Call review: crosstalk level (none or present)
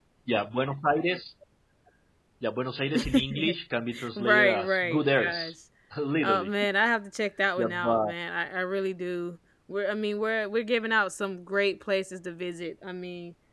present